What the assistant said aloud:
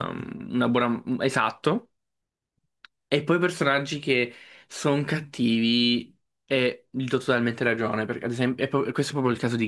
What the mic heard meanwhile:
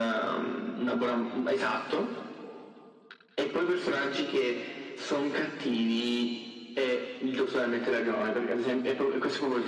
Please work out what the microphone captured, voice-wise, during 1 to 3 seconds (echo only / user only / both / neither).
echo only